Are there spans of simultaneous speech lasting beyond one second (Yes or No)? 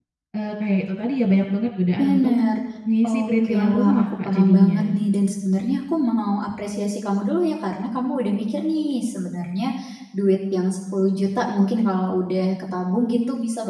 Yes